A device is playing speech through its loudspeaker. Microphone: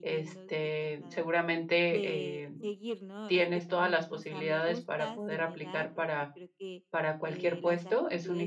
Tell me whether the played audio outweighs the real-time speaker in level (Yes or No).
No